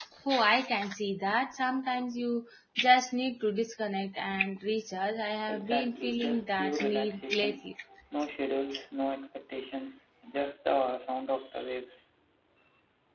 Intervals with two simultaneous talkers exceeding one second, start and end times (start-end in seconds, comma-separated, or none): 5.5-7.7